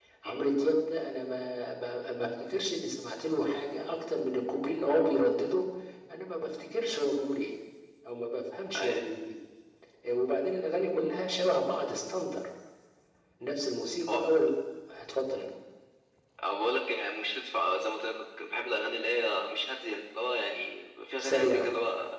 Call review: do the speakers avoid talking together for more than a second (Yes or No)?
Yes